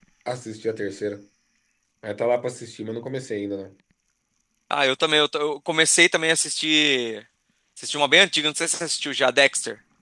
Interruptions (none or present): none